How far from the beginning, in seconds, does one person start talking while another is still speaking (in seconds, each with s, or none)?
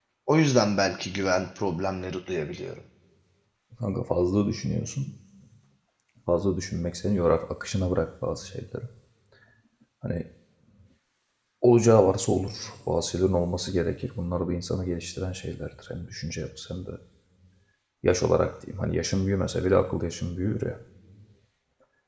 none